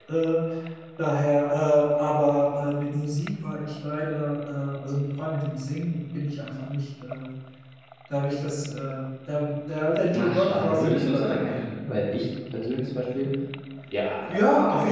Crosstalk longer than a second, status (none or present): present